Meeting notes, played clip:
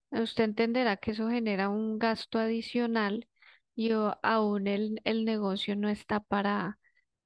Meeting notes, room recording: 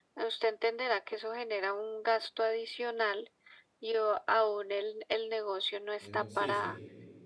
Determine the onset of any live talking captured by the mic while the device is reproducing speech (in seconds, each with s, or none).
6.0 s